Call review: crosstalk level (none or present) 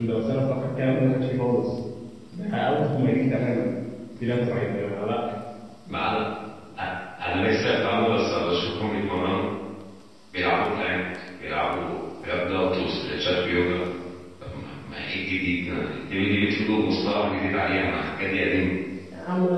none